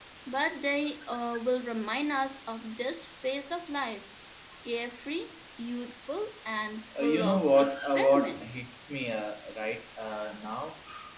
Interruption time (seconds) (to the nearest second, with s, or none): 7 s